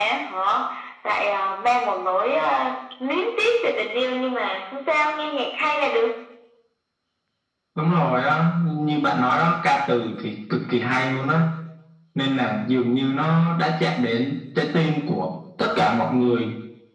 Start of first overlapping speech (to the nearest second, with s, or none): none